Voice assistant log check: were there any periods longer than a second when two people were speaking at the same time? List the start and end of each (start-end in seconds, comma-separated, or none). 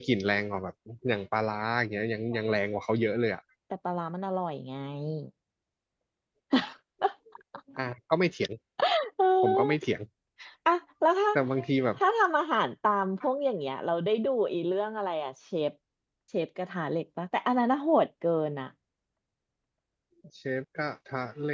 none